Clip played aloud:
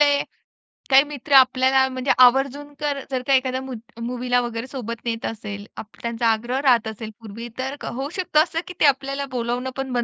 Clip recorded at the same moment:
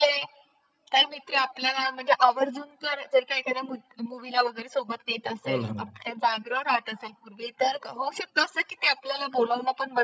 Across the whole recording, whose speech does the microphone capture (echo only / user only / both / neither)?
both